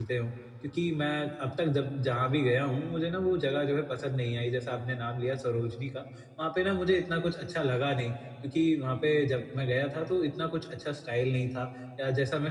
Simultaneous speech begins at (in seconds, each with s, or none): none